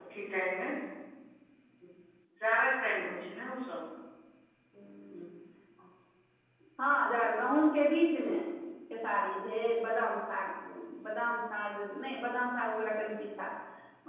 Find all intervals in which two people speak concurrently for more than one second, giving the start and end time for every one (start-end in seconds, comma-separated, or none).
none